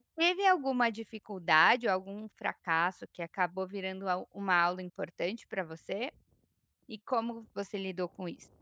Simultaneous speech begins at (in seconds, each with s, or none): none